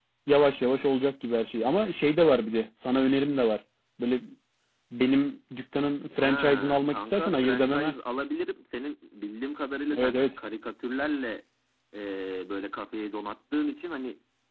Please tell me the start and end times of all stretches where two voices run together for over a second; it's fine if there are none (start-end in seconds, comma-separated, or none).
6.2-7.9